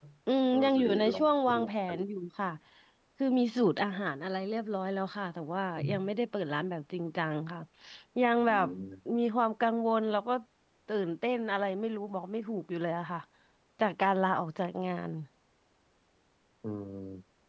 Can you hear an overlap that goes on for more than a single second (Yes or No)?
Yes